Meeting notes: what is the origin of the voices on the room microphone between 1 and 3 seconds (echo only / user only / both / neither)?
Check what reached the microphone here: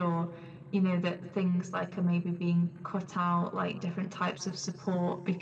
echo only